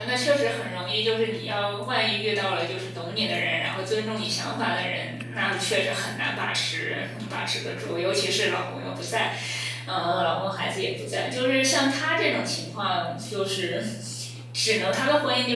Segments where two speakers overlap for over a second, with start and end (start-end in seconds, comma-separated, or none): none